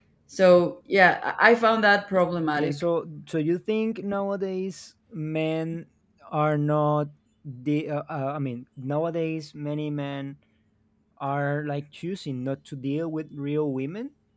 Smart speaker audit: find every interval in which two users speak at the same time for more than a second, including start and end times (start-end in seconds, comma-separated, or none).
none